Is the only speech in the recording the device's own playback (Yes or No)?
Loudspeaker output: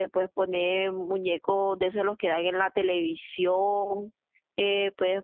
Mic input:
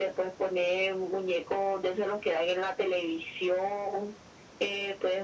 Yes